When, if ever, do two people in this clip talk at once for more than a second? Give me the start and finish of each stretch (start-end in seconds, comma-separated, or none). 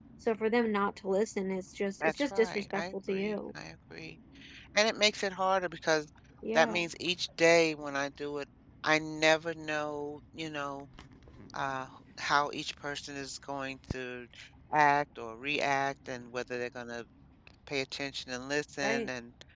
2.0-3.4